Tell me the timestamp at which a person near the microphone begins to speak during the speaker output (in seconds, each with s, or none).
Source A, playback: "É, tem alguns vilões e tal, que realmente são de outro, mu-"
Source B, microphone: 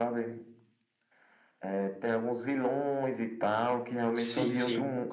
4.1 s